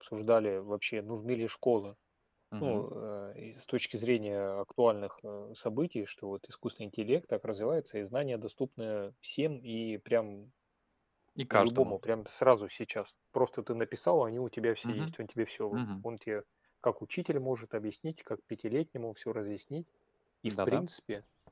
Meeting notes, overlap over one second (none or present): none